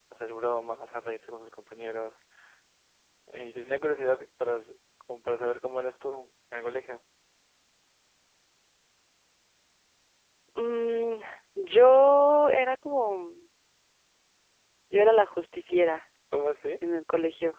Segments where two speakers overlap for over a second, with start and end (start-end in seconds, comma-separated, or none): none